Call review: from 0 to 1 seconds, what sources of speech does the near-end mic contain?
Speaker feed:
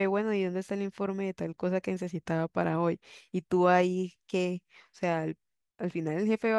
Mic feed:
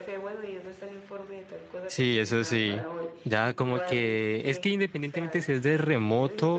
echo only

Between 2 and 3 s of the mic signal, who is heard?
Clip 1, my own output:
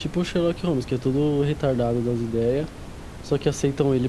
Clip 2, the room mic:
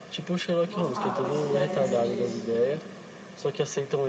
both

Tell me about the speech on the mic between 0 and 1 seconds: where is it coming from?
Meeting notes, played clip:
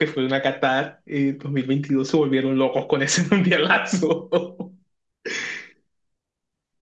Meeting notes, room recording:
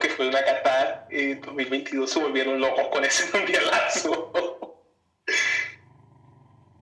echo only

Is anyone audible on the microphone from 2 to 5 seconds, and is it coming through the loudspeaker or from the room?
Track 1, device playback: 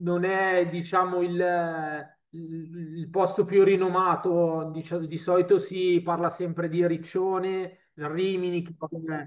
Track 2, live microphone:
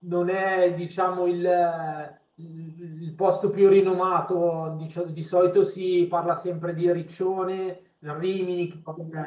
echo only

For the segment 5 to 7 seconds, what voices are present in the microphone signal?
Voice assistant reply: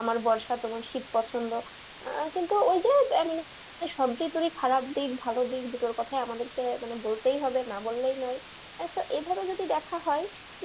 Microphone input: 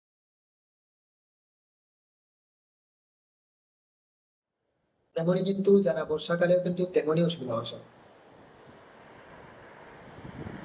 user only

